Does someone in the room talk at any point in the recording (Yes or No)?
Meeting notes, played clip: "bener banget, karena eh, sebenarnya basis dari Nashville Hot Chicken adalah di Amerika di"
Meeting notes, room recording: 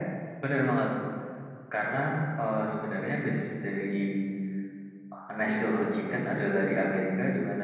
Yes